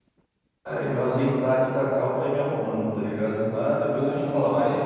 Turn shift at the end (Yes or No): Yes